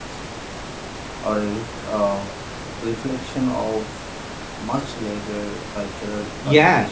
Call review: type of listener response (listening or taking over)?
taking over